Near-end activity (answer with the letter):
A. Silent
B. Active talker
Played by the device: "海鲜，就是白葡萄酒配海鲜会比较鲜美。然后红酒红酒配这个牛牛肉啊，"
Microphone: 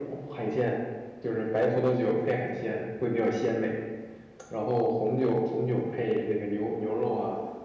A